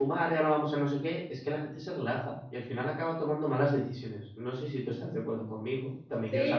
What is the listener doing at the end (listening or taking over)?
taking over